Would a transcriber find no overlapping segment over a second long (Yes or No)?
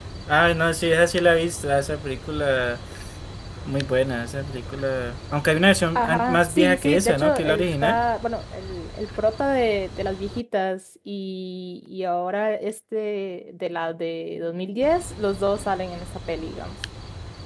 No